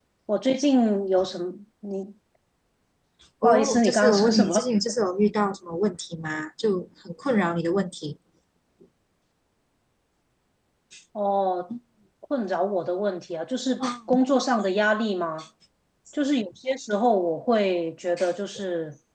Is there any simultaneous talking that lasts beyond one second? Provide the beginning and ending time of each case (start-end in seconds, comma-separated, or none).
3.4-4.7